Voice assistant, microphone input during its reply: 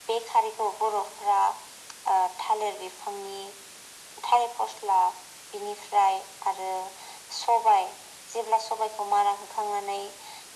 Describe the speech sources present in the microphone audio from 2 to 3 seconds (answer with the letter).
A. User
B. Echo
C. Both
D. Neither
B